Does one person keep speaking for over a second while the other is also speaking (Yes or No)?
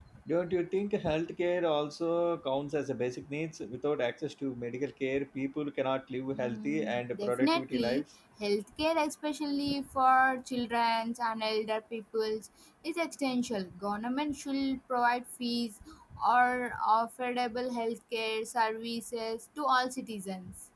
Yes